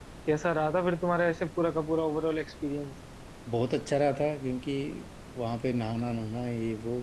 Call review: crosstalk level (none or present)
none